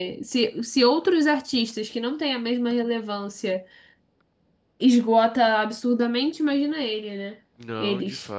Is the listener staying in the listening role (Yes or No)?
No